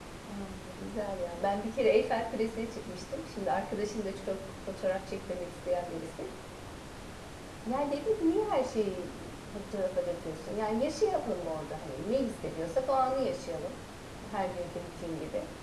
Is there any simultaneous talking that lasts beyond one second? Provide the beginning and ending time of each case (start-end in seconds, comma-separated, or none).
none